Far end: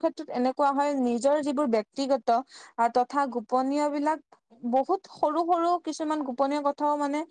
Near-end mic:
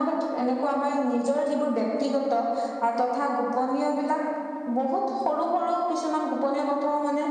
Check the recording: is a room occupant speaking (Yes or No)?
No